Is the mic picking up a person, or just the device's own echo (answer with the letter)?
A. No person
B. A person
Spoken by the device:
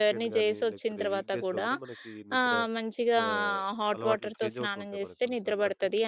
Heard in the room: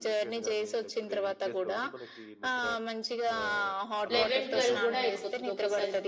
B